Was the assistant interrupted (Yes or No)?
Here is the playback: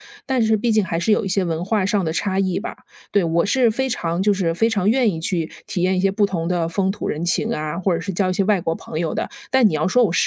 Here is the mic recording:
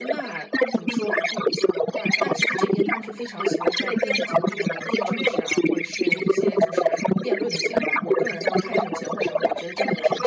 Yes